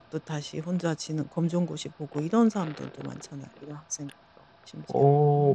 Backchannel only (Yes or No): No